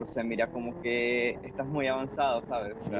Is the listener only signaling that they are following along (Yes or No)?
No